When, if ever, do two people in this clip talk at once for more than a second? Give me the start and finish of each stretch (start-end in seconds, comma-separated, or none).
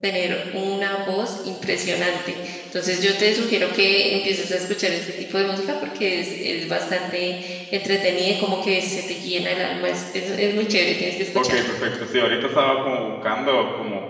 none